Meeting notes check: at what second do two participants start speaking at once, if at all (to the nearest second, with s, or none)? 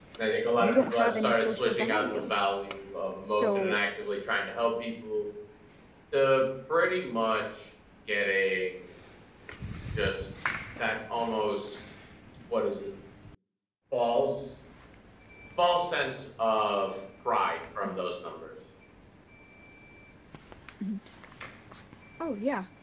1 s